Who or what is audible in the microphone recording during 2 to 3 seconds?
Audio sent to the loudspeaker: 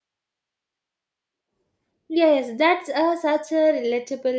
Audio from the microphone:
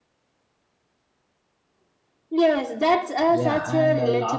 echo only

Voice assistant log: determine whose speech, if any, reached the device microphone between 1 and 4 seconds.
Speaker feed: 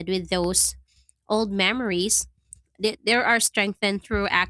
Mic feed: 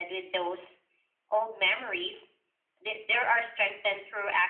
echo only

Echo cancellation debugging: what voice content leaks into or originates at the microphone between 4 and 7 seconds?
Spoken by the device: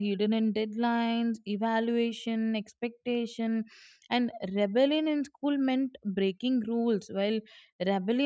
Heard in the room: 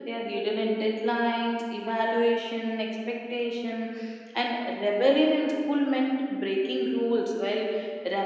echo only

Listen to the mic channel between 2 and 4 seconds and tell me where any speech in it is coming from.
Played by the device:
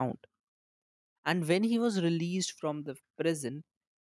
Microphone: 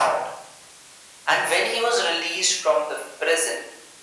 echo only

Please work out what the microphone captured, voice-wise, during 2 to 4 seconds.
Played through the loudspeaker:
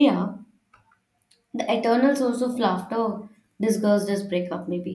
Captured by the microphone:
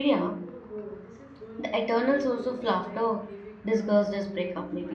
both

